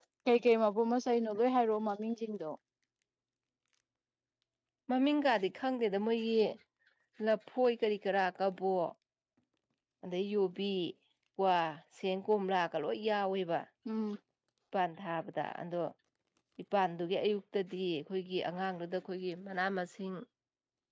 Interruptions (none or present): none